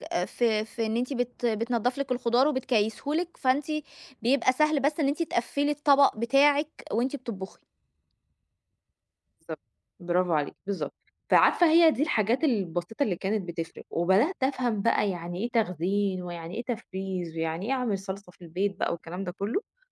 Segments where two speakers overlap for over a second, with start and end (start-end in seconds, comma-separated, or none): none